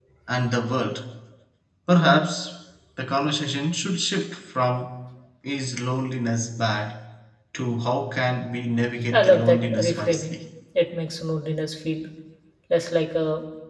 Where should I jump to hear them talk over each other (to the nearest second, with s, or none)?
9 s